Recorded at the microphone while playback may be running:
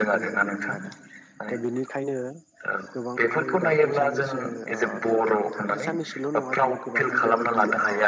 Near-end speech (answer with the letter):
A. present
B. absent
A